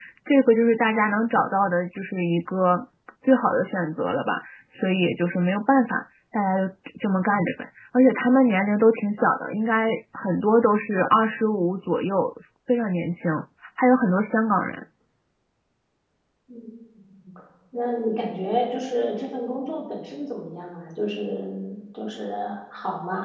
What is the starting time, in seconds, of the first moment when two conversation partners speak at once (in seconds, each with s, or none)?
none